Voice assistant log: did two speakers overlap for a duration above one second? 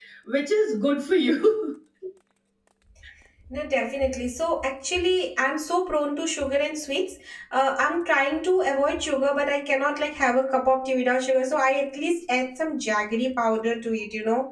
No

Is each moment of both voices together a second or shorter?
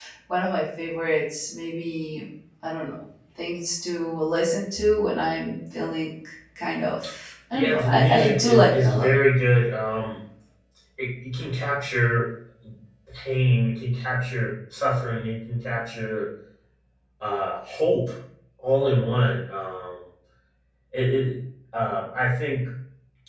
No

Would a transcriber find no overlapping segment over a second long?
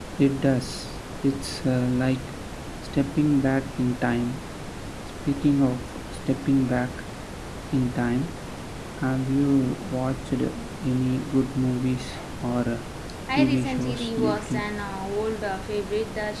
No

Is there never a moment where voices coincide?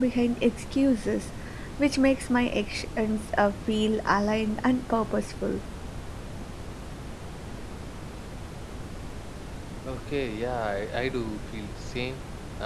Yes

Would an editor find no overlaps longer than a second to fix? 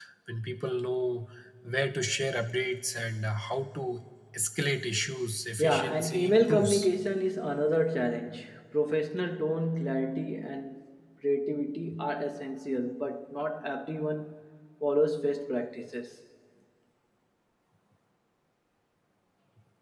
No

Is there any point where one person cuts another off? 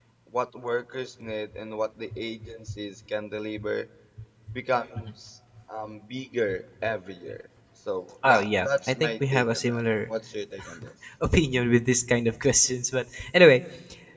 Yes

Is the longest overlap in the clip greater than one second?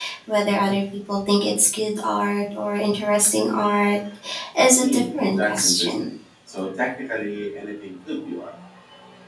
Yes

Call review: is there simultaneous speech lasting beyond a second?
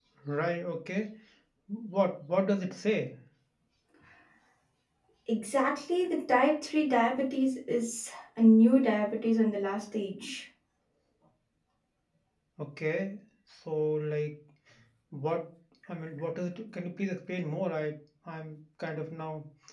No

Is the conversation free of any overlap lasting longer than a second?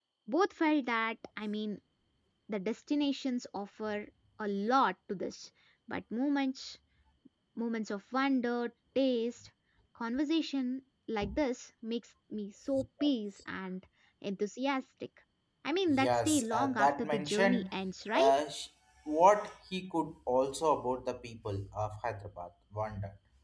No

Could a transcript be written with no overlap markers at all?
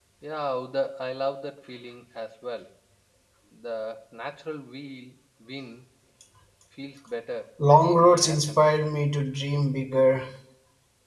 No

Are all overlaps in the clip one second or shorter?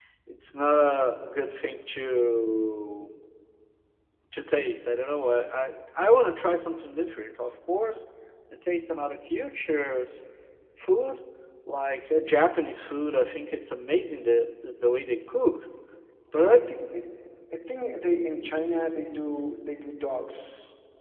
Yes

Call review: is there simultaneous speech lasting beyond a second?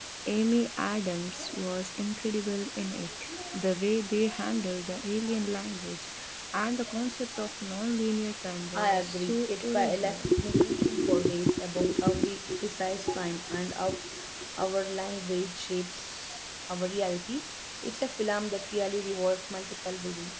Yes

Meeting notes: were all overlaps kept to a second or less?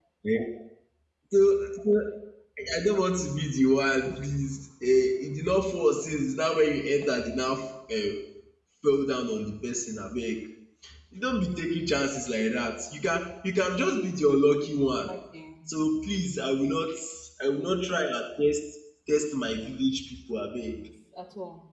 Yes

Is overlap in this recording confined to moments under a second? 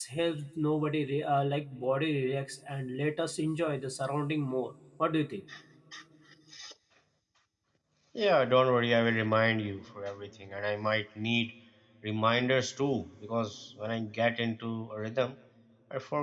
Yes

